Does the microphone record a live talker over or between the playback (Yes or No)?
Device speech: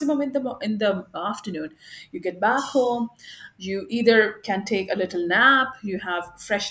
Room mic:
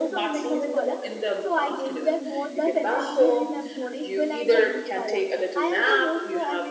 Yes